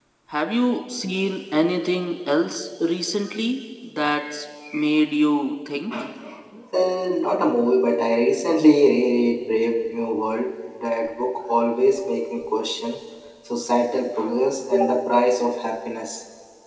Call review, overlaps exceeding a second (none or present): none